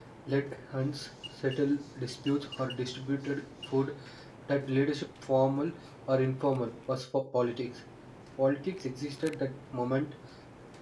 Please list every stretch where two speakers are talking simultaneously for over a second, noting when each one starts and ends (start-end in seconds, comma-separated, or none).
none